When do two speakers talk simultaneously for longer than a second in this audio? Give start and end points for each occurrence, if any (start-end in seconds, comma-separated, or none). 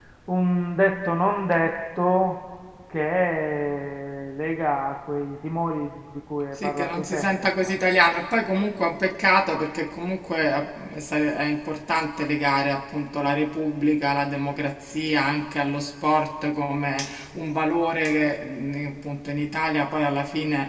6.5-7.8